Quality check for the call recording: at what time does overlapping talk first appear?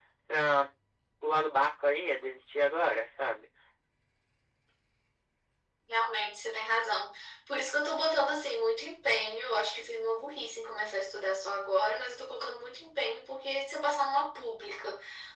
none

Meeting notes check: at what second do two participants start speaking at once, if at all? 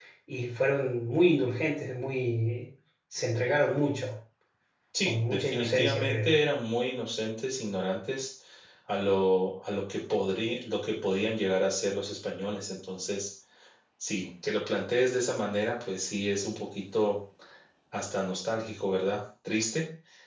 5.0 s

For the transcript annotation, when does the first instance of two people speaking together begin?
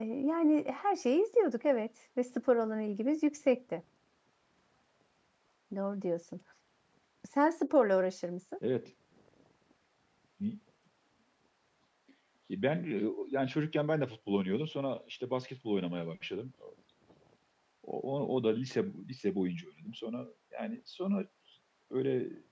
none

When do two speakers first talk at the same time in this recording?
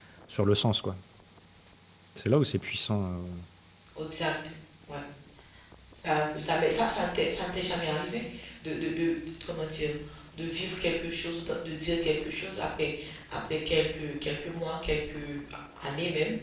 none

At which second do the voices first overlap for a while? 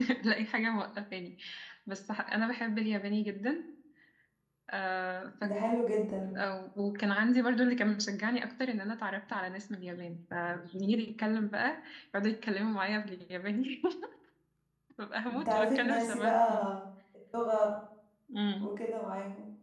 15.3 s

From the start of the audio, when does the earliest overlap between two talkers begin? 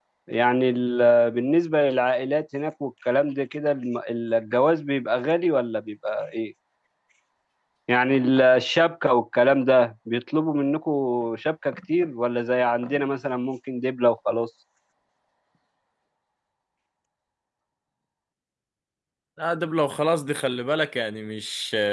none

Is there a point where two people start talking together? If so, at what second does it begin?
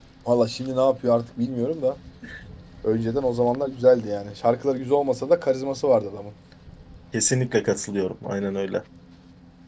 none

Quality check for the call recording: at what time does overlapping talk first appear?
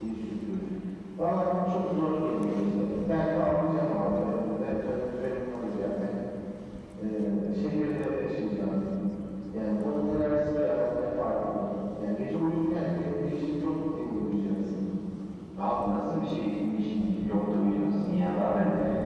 none

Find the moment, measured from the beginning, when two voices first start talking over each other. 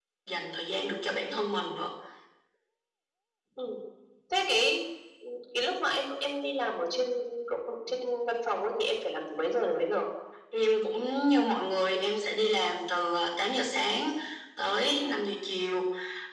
none

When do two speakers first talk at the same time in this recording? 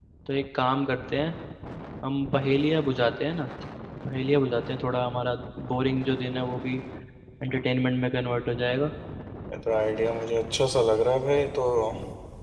none

